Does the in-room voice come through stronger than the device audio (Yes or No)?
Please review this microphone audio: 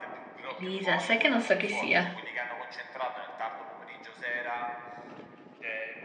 Yes